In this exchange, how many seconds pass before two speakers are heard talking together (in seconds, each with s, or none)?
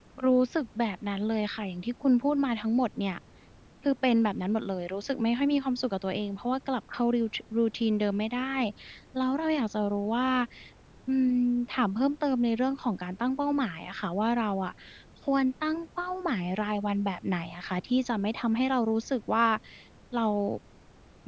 none